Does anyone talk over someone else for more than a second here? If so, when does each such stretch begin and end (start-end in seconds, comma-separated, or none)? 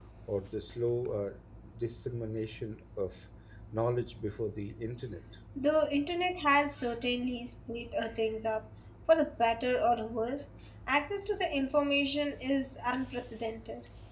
none